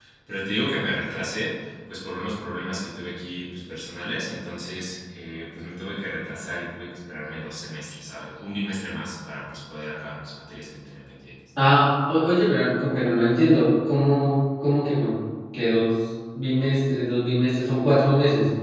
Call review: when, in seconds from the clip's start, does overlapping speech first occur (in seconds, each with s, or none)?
none